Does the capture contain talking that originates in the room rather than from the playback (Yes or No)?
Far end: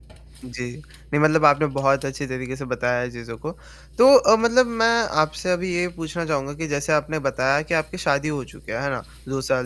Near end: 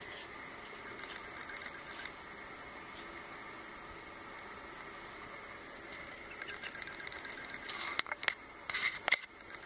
No